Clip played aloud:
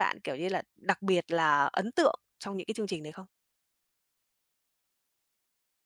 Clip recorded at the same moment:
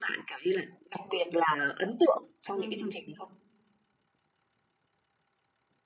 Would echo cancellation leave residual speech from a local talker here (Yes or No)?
Yes